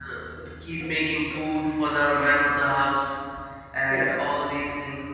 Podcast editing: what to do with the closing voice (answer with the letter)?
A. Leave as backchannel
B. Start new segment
A